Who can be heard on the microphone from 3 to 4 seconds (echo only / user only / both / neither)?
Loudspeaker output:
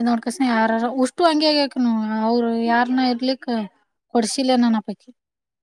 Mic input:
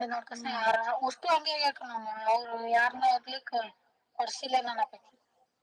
echo only